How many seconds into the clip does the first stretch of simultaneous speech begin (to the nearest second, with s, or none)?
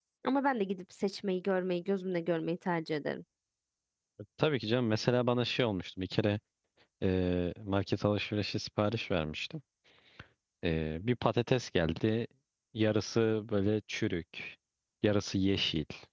none